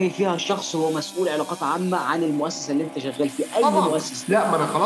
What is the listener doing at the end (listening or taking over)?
taking over